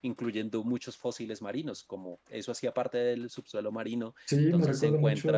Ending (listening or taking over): taking over